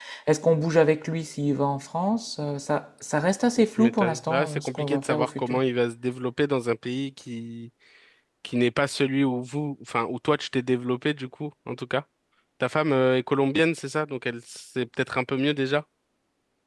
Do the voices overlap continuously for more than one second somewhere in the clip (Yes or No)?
Yes